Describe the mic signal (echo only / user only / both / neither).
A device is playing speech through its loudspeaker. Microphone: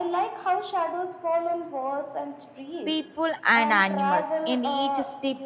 both